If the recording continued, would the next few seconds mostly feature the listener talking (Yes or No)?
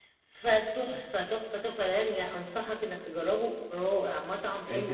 Yes